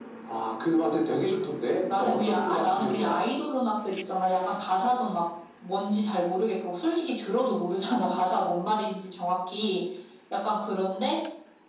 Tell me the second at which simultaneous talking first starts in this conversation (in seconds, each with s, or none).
1.9 s